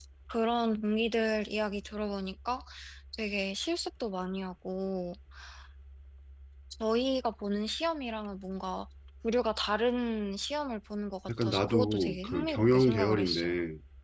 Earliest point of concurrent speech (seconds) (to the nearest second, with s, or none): 11 s